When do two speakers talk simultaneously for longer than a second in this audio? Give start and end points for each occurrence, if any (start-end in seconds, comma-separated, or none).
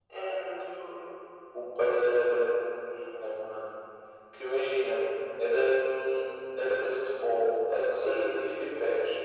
none